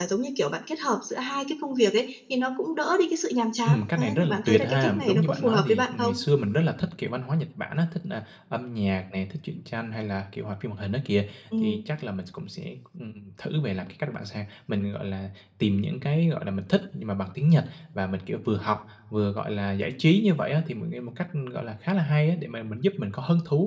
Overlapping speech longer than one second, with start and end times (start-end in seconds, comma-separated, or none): 3.6-6.1